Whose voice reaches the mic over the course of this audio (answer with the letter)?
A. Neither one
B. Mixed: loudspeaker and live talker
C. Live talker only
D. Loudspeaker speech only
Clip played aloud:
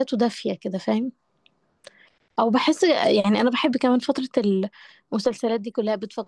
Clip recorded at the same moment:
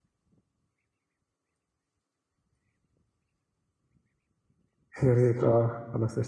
C